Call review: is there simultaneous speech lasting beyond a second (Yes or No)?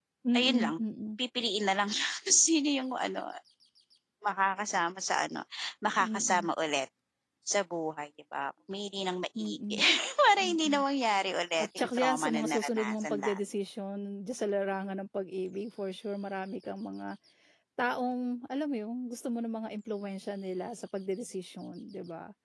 Yes